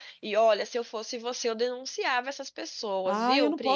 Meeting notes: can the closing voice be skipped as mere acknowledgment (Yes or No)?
No